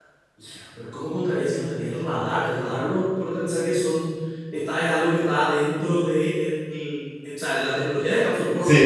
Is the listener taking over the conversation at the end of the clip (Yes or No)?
Yes